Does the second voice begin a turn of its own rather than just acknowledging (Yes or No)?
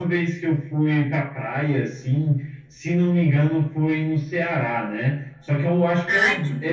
No